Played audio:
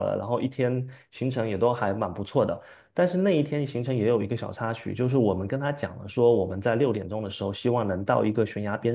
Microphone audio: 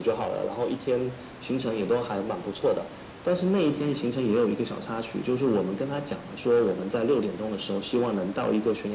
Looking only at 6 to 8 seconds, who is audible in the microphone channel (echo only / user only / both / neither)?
echo only